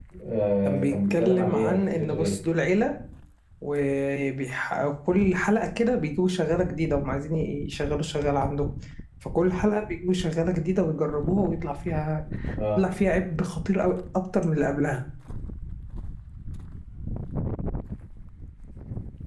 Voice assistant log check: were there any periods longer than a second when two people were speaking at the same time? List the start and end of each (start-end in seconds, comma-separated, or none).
0.6-2.4